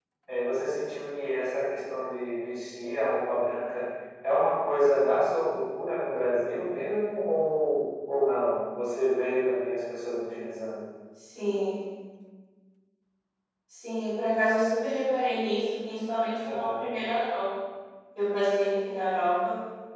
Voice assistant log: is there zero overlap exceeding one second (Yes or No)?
Yes